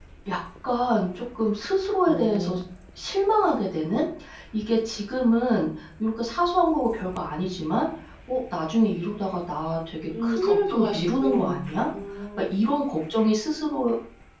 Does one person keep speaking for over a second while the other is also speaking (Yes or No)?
Yes